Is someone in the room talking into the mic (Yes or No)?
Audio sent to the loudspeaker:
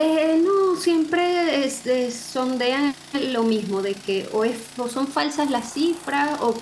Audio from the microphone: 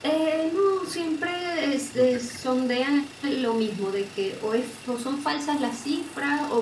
Yes